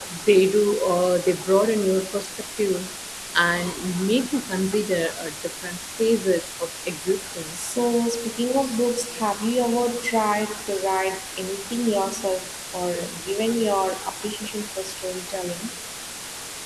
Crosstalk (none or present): none